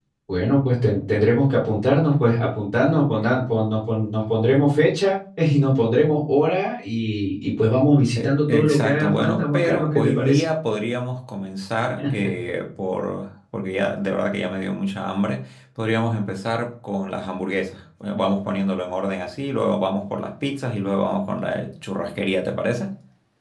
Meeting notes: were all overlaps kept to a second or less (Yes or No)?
No